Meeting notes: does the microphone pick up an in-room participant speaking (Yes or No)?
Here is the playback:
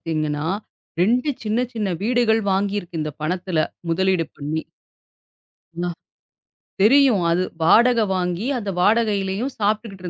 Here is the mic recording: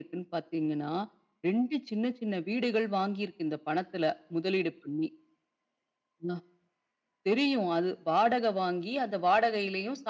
No